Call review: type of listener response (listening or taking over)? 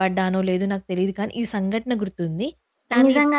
taking over